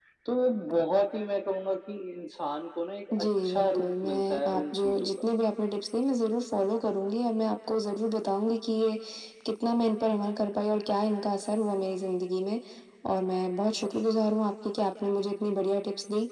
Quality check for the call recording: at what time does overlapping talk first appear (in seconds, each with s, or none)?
3.1 s